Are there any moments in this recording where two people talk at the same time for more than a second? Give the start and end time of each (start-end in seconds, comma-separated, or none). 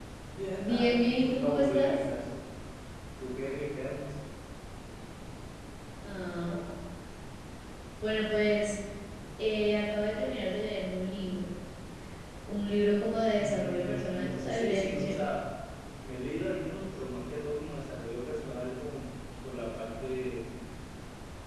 0.6-1.9, 13.4-15.2